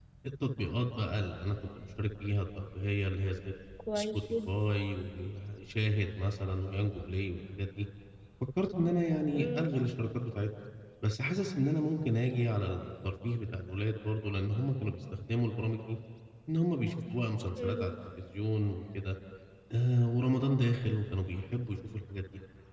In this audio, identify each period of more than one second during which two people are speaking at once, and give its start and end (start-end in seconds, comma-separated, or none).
none